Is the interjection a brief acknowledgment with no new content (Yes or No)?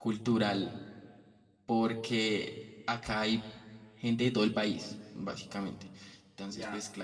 Yes